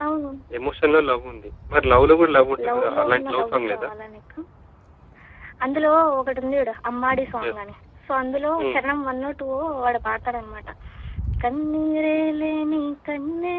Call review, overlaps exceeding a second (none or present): present